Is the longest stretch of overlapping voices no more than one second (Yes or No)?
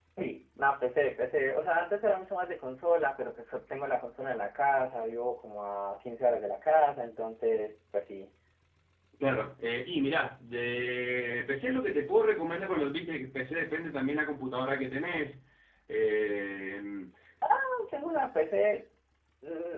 Yes